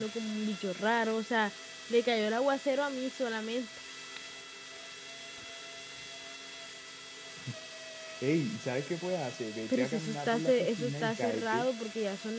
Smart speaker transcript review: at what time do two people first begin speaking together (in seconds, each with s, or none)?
9.7 s